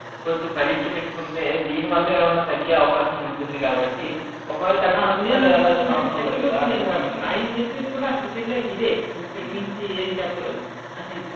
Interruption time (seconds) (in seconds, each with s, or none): 5.0 s